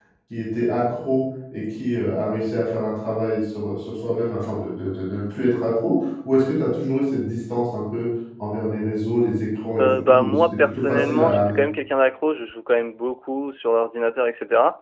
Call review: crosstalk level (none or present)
present